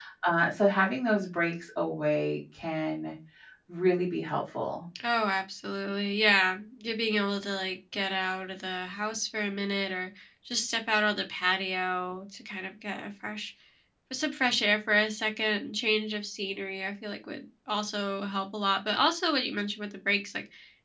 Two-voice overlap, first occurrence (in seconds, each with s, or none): none